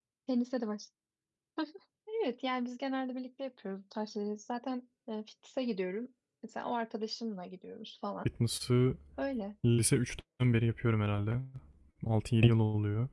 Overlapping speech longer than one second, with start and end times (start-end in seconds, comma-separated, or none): none